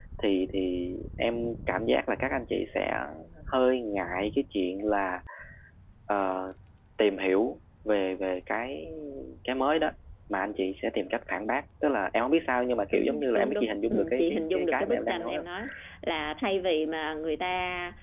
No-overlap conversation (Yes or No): No